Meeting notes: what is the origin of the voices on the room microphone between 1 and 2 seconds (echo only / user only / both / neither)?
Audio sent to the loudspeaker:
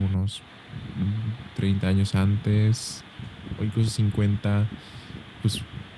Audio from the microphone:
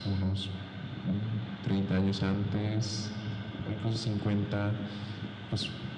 echo only